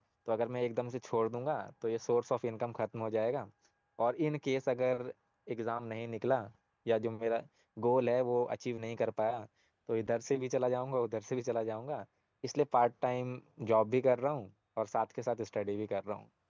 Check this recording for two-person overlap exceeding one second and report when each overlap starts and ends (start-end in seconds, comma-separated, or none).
none